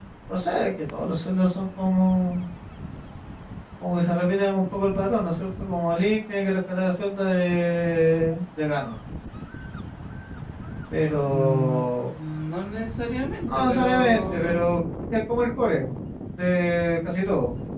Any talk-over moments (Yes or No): Yes